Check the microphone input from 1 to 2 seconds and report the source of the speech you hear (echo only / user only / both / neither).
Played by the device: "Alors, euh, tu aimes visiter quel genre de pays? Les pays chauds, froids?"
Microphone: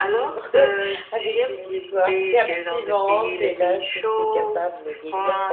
both